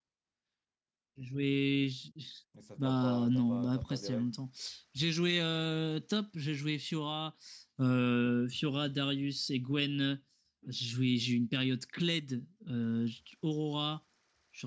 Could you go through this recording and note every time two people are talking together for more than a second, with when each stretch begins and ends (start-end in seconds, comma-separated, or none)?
2.8-4.3